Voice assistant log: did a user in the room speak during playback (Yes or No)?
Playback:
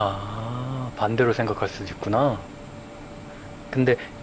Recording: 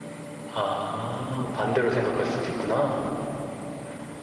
Yes